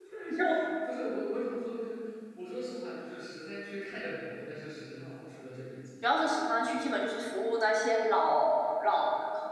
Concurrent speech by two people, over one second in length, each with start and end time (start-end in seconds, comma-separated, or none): none